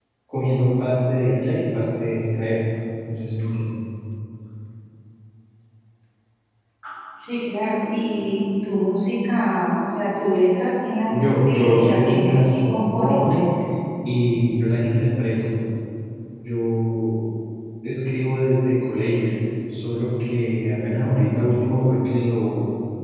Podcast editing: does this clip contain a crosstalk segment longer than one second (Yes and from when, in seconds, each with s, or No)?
Yes, from 11.1 s